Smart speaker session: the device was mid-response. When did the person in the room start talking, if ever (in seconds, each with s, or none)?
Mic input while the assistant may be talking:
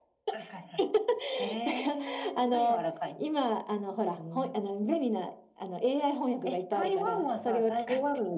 none